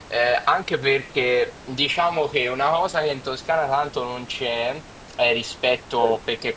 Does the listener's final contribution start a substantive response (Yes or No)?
No